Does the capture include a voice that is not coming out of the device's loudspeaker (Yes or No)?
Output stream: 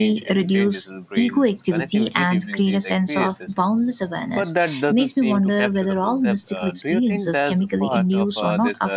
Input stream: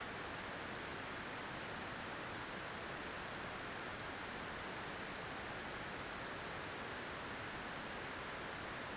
No